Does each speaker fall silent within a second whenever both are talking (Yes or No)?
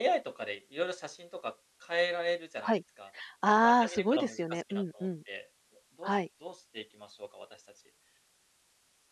No